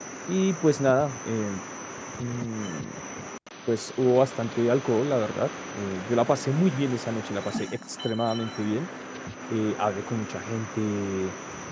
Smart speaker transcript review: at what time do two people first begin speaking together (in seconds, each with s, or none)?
none